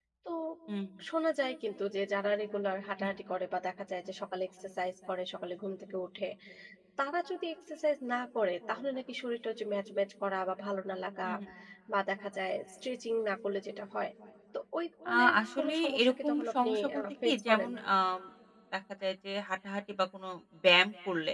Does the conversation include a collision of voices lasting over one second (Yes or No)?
Yes